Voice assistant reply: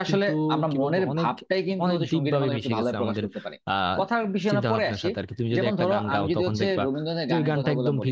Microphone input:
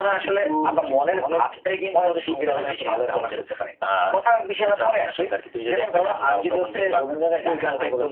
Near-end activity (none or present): none